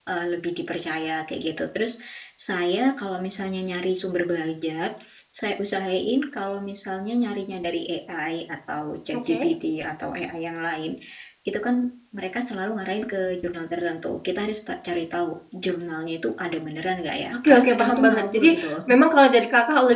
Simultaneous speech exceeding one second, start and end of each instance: 17.3-18.7

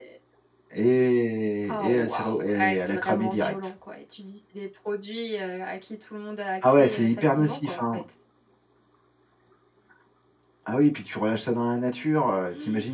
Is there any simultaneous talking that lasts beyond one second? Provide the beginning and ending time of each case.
1.7-3.5, 6.6-8.0

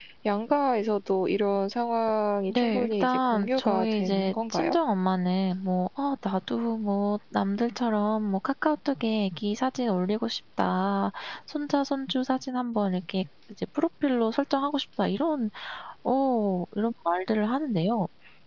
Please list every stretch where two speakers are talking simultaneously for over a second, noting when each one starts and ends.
2.5-4.8

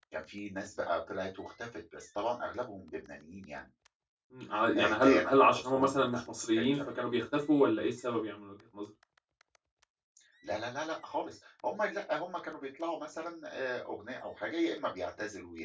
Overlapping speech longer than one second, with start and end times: 4.8-6.2

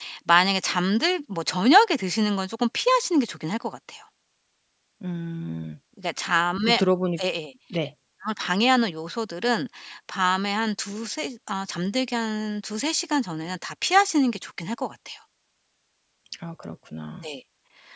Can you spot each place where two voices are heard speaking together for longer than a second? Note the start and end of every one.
none

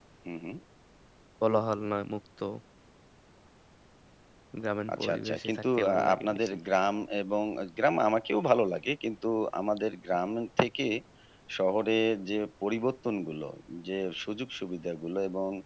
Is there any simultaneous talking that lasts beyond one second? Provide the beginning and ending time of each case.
4.9-6.6

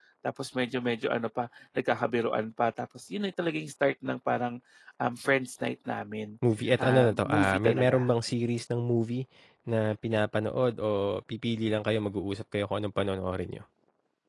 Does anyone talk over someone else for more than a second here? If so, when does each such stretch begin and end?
6.8-8.0

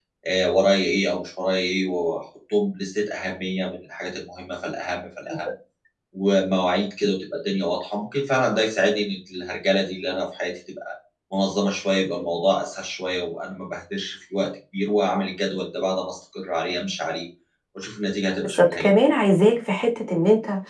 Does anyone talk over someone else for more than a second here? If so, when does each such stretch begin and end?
none

